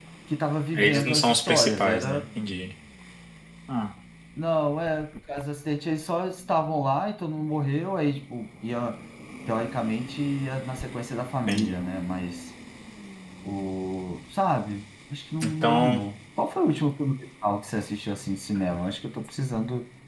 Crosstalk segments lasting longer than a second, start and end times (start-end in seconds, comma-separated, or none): 0.8-2.2